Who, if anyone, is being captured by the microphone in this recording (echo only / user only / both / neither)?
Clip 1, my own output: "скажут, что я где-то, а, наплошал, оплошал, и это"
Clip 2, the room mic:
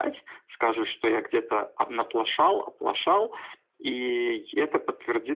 echo only